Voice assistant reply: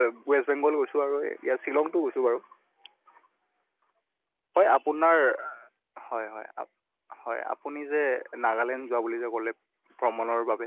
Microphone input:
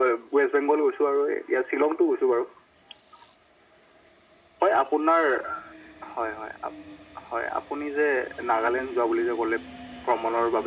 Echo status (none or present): present